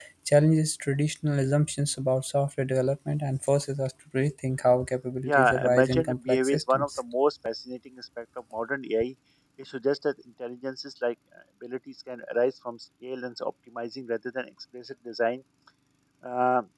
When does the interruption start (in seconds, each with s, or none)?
5.2 s